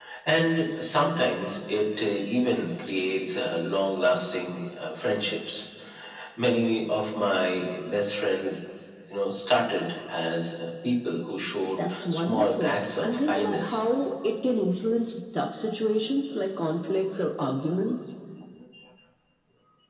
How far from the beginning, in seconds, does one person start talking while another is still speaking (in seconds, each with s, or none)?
11.8 s